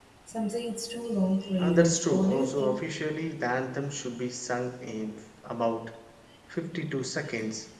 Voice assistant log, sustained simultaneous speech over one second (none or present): present